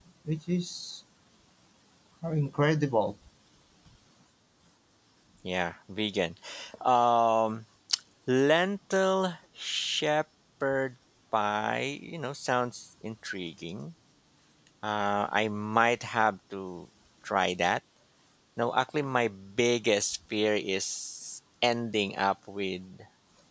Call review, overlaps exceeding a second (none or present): none